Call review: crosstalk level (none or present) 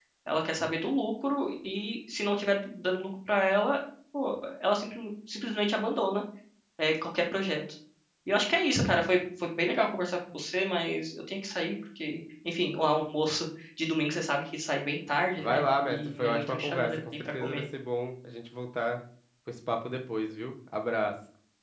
present